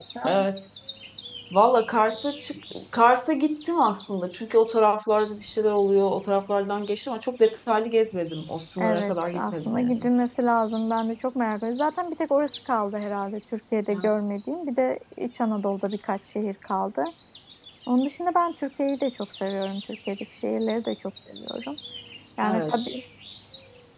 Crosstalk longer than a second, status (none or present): present